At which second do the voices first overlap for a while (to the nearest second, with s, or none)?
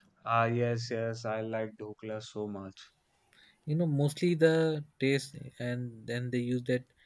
none